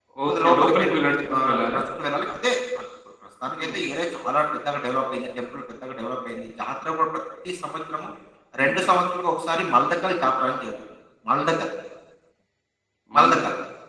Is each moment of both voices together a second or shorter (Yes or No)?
No